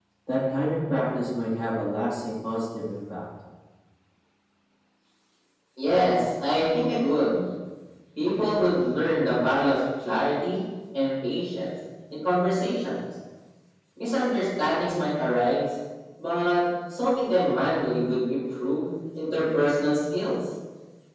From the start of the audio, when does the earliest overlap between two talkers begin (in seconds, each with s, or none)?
none